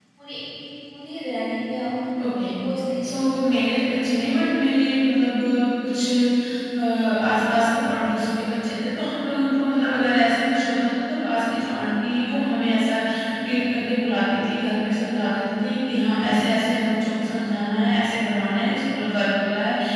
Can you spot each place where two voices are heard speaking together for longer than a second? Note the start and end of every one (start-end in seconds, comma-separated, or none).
3.0-4.3